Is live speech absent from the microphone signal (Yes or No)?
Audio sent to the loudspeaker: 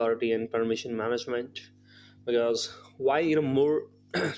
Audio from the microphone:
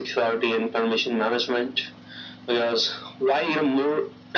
Yes